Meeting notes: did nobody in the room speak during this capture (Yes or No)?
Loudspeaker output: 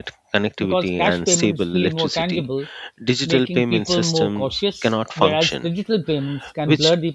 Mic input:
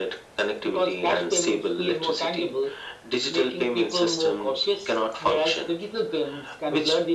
Yes